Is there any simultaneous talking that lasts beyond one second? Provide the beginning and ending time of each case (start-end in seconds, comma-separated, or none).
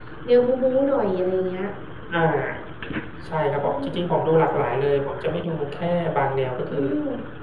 none